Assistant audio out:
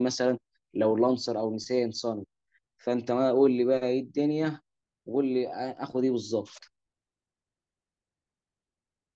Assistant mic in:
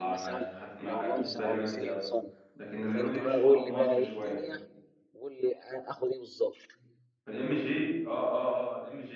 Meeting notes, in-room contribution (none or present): present